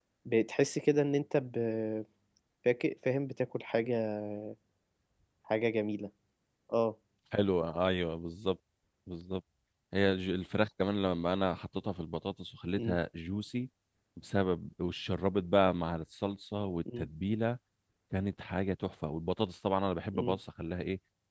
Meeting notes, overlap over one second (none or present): none